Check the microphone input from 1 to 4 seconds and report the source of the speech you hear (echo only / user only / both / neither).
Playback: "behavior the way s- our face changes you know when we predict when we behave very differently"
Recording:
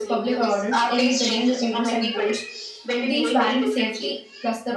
both